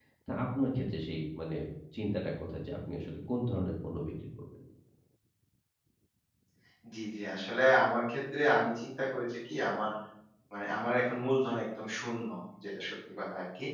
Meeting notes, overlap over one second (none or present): none